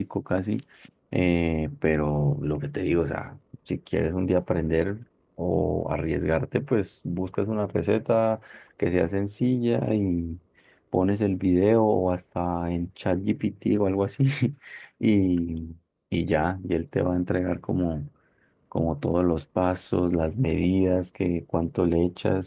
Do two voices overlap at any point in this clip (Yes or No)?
No